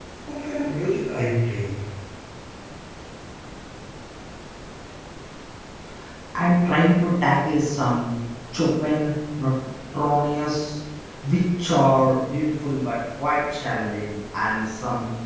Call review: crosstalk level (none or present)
none